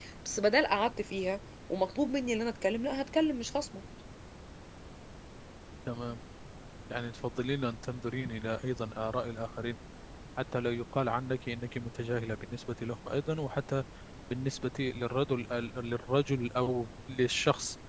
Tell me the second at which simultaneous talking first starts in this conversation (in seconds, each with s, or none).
none